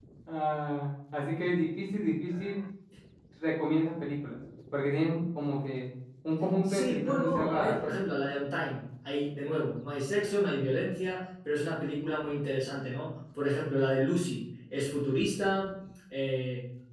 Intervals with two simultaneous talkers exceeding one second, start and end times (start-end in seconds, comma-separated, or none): 6.7-7.9